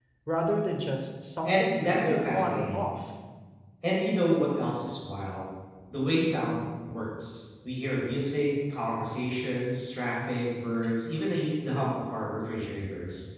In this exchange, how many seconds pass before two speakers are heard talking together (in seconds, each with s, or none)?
1.4 s